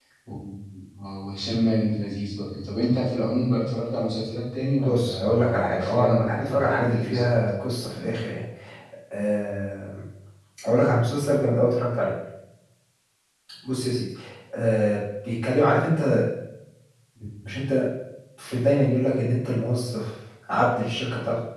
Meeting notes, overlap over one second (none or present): present